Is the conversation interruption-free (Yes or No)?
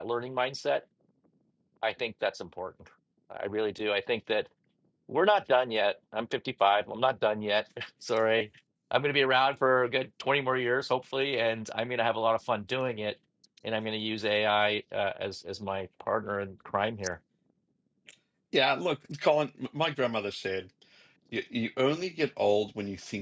Yes